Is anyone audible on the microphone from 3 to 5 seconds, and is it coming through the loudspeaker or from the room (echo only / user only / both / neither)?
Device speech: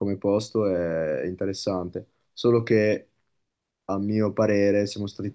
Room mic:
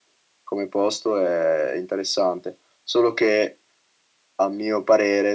echo only